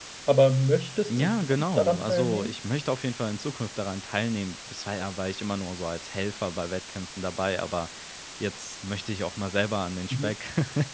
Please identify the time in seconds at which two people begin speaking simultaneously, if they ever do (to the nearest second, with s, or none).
1 s